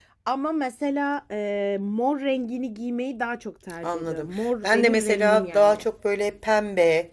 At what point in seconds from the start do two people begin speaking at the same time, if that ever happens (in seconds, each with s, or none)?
3.8 s